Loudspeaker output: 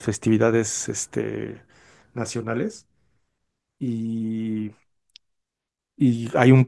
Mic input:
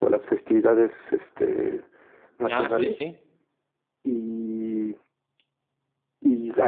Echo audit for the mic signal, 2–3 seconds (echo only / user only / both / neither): both